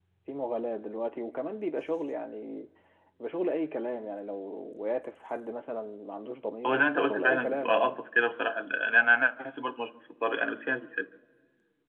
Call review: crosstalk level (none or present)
present